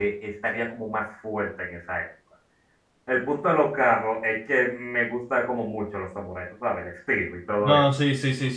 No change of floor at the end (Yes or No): No